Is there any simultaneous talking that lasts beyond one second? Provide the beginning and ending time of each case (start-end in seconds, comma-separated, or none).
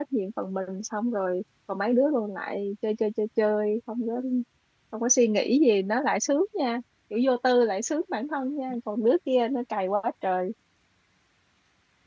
none